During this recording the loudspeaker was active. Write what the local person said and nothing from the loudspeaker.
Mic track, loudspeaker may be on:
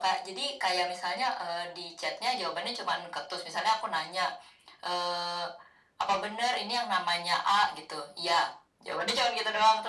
none

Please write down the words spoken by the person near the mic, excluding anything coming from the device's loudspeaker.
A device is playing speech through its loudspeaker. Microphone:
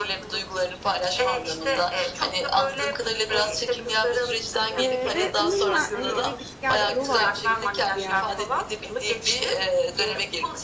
Eee, ve onunla, hani, eve git gel yol arkadaşıyız bir yerden de.

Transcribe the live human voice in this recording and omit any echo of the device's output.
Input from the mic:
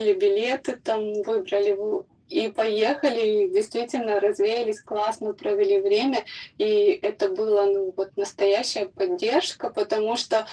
none

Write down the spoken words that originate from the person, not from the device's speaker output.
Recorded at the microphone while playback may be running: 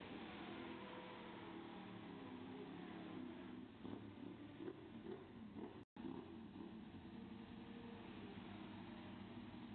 none

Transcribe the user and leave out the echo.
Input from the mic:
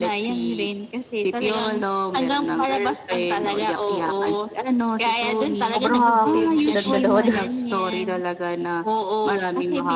sobrang nakakakilig silang dalawa dun.

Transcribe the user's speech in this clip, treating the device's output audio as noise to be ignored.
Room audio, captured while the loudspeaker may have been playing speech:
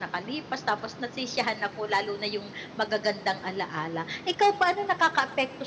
none

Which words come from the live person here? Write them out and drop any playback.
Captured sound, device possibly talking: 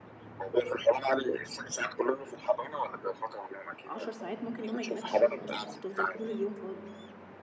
10 ساعات، ممكن يوم ما يجيلكش شغل أصلًا، وتفضَل طول اليوم فاضي.

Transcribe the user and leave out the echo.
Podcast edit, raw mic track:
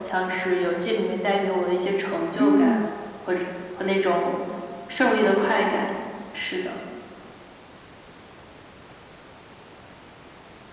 嗯。

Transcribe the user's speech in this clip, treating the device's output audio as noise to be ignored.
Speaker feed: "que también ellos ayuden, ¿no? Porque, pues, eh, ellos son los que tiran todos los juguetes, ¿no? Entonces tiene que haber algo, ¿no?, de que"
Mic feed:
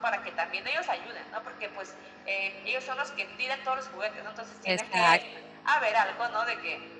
Exacto.

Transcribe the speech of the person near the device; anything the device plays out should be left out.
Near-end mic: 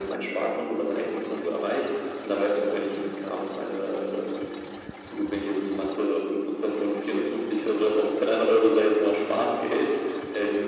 none

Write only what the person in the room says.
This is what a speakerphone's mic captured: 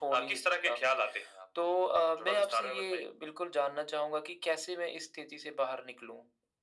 none

